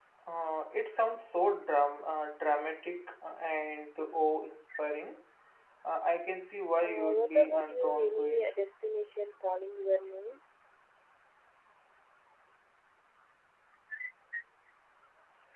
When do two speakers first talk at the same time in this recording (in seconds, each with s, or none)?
6.8 s